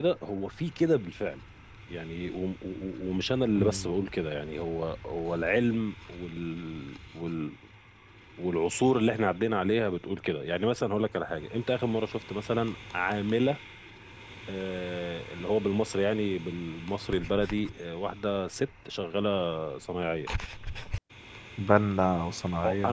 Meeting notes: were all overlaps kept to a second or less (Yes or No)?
Yes